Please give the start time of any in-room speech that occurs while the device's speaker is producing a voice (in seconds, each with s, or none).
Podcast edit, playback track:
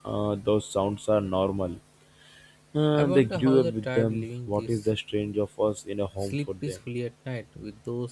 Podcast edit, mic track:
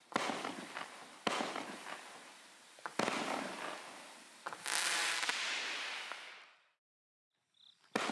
none